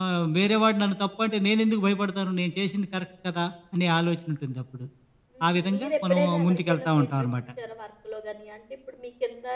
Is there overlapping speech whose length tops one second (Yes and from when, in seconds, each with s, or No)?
Yes, from 5.5 s